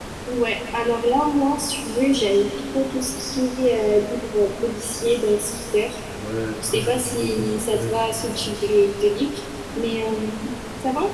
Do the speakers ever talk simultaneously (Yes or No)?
Yes